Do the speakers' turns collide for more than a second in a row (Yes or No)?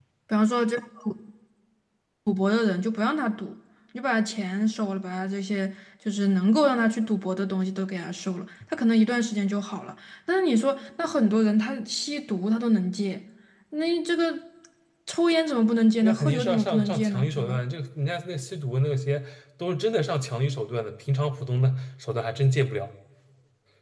Yes